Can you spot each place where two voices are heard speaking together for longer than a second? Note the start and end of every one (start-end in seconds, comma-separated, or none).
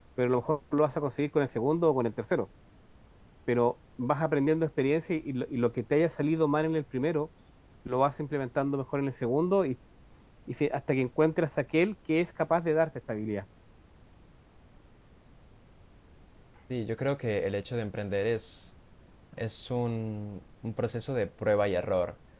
none